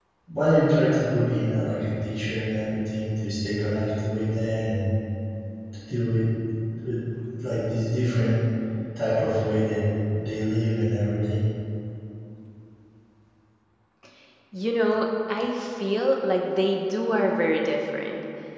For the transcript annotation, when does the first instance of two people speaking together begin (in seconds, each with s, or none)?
none